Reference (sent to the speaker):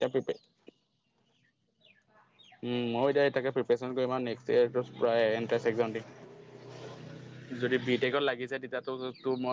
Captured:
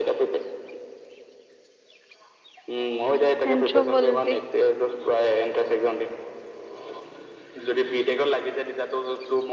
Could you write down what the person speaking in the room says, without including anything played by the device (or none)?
এনট্ৰ পলিতি।